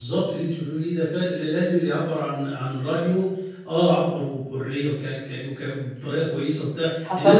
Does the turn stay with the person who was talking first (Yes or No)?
No